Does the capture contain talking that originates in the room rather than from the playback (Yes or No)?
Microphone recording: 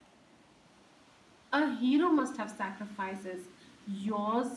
No